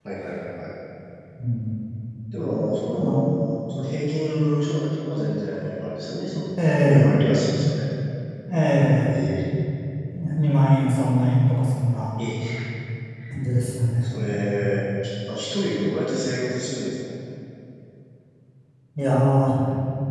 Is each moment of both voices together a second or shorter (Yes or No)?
Yes